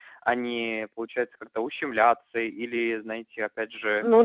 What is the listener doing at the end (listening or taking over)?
taking over